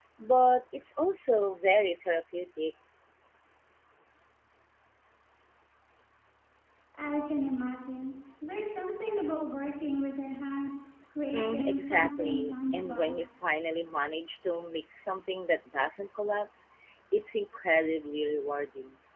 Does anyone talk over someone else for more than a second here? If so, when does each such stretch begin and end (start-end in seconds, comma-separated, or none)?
11.3-13.2